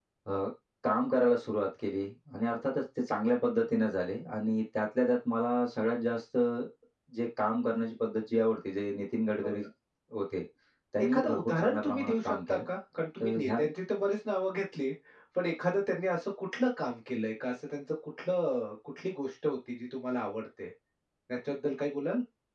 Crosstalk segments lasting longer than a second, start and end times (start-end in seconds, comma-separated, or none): 11.0-12.6